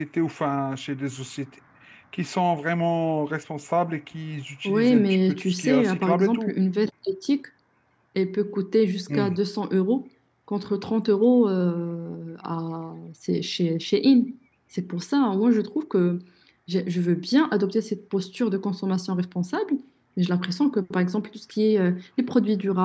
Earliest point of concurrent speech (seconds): 4.6 s

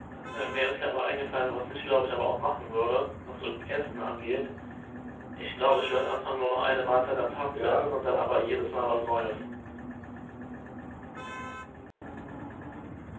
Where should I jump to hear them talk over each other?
7.5 s

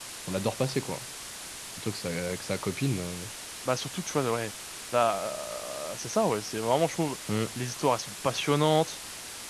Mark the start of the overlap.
none

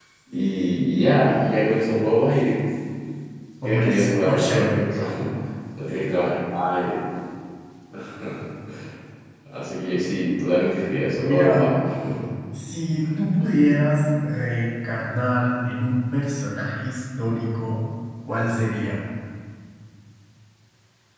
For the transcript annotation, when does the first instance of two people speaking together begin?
3.6 s

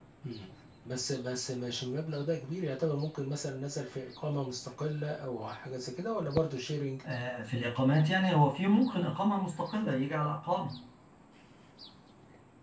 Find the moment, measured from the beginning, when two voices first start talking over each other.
none

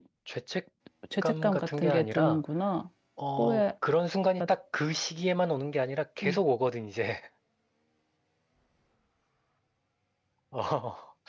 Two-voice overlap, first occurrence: 1.2 s

